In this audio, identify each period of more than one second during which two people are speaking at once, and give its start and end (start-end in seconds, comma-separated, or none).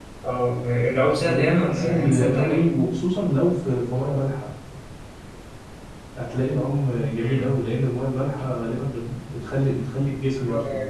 1.2-2.7